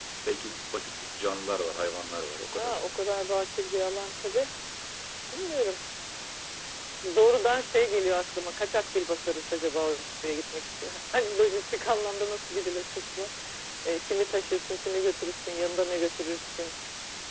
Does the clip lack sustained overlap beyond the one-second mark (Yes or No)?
Yes